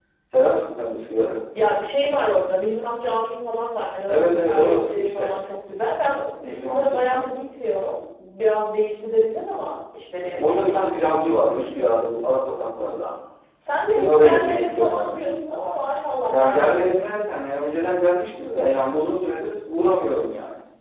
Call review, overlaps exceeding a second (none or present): present